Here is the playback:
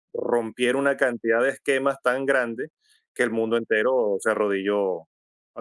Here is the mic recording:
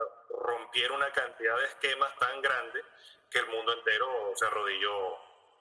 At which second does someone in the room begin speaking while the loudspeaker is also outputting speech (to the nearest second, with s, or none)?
none